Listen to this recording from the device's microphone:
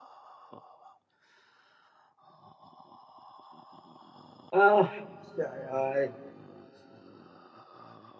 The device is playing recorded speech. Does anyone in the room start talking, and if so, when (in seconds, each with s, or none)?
4.5 s